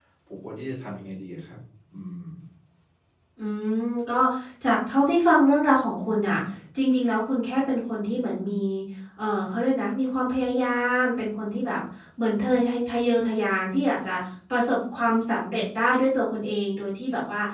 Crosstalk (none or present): none